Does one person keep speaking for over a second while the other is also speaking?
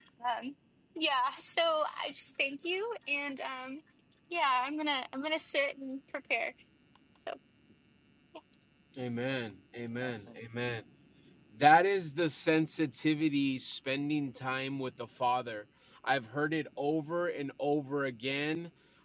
No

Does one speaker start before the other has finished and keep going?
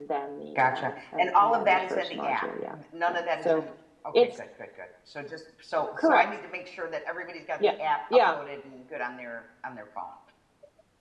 Yes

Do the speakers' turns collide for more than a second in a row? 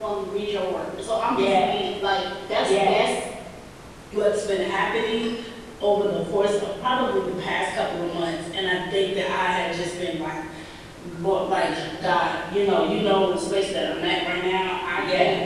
No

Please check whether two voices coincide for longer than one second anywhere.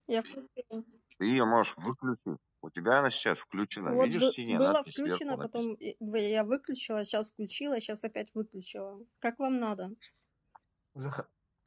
Yes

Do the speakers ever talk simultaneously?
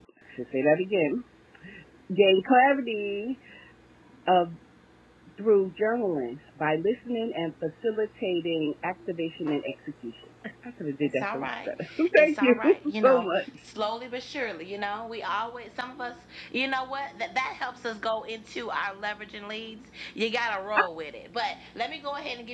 Yes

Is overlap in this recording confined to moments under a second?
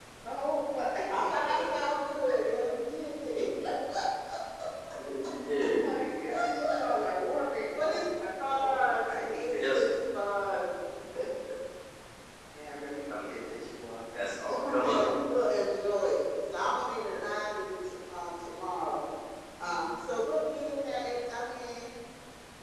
No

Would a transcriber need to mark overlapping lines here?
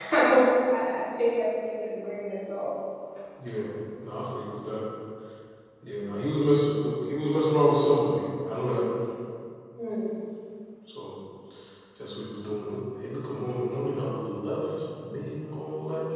No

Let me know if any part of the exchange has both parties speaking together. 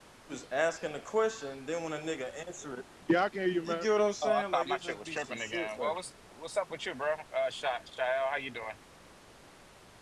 Yes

